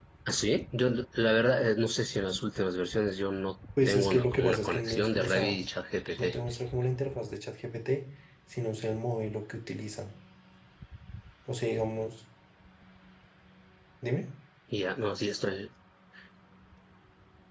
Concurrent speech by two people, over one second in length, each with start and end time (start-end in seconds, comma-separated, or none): 3.9-5.5